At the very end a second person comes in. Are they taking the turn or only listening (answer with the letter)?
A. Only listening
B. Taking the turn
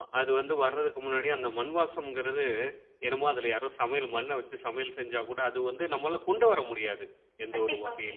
A